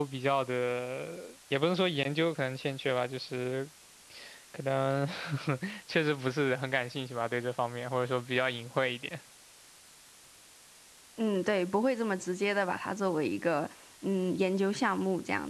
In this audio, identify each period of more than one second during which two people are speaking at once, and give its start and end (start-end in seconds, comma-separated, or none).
none